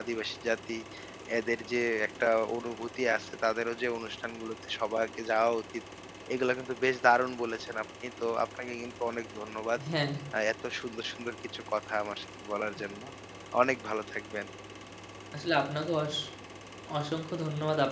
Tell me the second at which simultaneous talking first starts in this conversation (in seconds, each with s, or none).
none